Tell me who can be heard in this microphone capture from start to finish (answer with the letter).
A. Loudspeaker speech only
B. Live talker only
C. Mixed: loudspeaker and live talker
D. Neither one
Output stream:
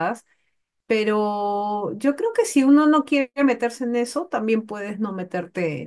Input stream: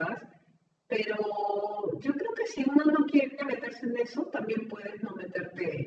A